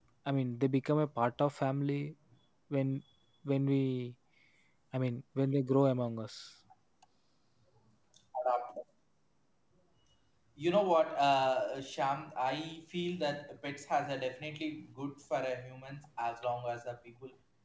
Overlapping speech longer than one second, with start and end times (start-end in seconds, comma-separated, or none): none